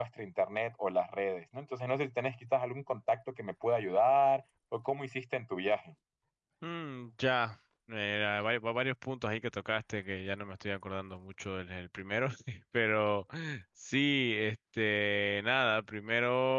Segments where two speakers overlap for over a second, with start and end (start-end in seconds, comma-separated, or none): none